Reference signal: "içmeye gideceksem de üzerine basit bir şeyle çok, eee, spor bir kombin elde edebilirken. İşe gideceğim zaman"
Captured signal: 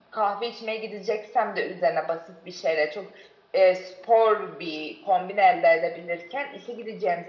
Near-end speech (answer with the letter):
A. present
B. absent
B